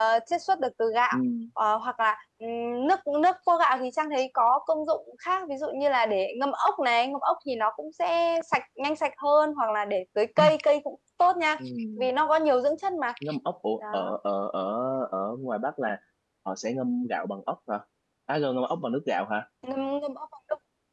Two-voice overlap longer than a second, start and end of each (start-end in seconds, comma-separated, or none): none